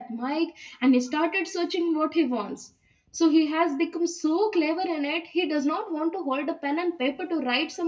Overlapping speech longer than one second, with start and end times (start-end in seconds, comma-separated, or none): none